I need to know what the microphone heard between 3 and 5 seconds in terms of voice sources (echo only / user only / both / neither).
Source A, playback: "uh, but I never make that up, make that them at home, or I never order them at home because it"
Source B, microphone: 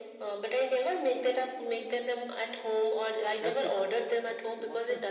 both